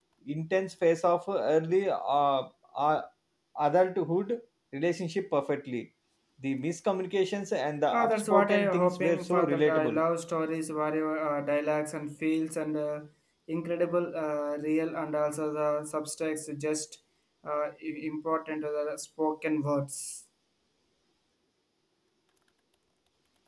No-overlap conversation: No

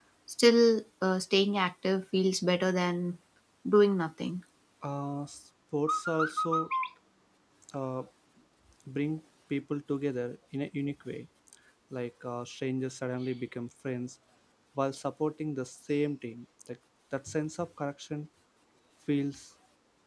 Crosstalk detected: No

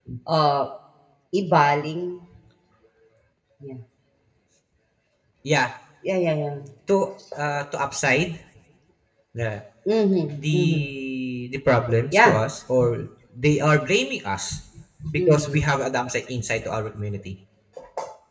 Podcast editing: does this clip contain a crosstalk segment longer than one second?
No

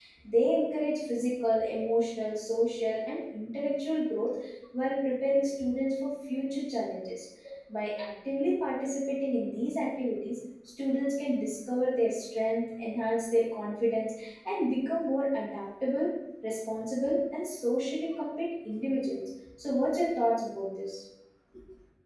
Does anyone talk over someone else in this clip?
No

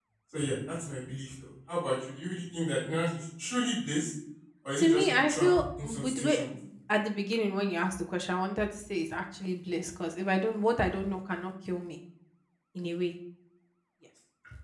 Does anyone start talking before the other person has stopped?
Yes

